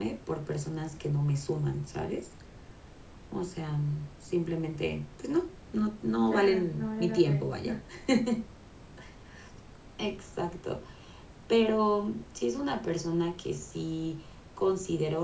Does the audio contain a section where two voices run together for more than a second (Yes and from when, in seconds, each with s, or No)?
Yes, from 6.3 s